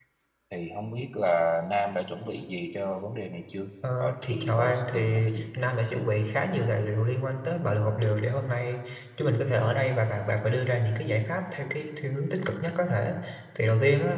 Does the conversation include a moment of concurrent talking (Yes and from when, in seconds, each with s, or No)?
Yes, from 3.8 s